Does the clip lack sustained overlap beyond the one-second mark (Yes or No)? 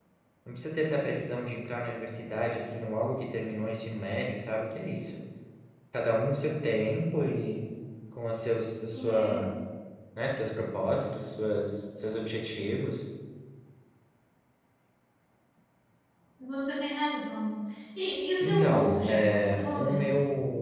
No